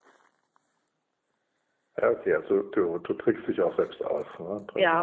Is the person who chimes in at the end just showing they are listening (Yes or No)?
No